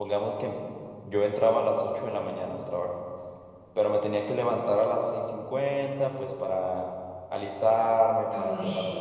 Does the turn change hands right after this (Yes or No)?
No